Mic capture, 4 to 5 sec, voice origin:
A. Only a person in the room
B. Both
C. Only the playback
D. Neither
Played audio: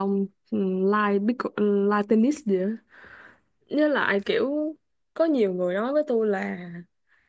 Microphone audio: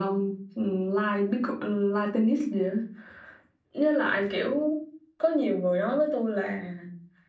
C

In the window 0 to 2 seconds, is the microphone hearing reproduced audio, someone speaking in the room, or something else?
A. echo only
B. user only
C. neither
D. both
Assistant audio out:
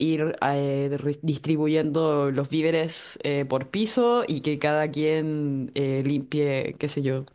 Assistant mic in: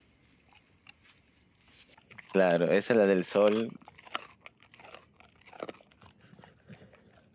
C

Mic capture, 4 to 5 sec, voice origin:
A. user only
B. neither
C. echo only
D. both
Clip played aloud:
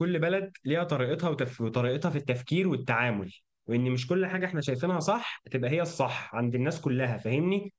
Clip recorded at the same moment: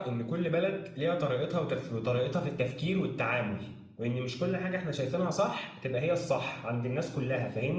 C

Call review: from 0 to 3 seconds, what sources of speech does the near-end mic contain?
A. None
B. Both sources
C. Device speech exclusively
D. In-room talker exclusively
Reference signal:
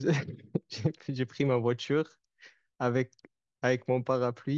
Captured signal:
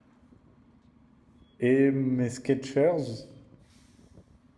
D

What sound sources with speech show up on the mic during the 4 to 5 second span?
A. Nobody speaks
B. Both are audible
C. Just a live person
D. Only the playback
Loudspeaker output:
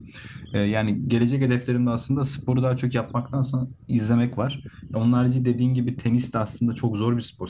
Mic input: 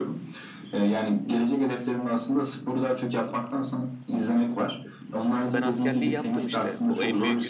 D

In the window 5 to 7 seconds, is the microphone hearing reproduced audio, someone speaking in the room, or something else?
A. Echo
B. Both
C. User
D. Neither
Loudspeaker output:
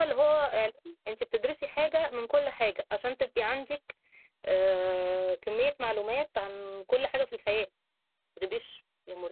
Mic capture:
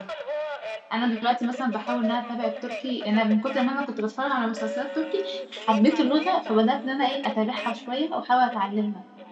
B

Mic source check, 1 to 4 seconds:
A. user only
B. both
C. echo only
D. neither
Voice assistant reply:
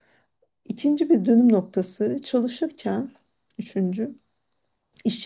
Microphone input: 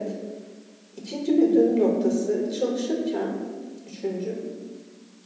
C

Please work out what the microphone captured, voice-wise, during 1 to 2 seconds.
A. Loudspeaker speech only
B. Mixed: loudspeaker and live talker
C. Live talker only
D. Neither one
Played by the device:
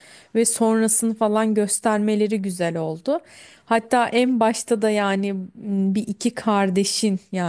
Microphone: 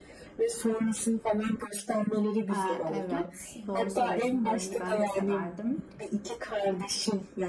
A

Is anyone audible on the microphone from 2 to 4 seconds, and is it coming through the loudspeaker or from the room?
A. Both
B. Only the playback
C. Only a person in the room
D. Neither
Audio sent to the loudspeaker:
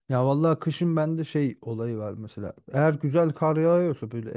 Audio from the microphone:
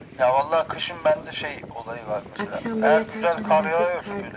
A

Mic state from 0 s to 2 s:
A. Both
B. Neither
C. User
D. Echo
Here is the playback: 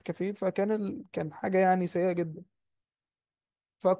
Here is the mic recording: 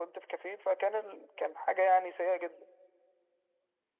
D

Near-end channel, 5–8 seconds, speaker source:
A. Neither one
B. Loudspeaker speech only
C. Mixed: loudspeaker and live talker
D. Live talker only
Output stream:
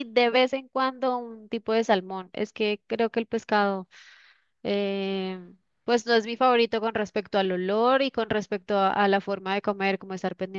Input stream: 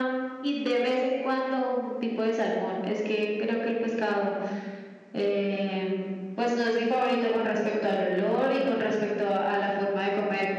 B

